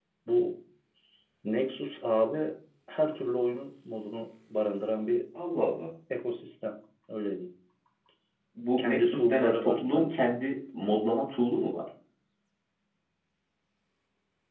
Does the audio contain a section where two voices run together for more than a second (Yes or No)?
Yes